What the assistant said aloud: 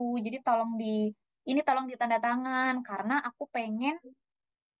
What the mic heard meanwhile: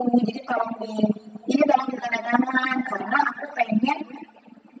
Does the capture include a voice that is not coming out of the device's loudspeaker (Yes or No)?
No